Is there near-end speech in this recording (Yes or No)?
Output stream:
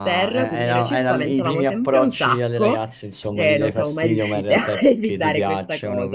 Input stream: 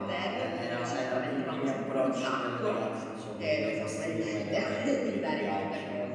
No